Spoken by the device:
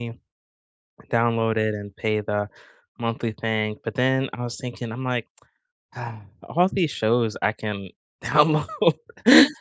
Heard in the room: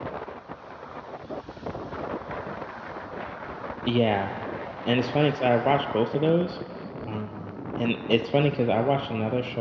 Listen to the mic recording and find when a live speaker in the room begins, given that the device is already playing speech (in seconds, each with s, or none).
3.9 s